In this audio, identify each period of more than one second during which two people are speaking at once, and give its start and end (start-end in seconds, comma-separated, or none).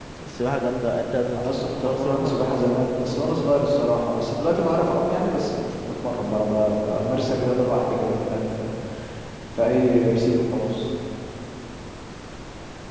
1.4-2.6